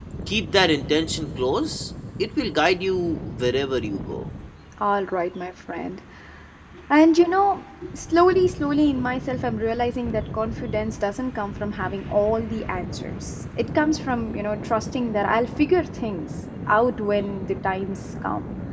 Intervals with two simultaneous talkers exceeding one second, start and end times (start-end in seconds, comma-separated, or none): none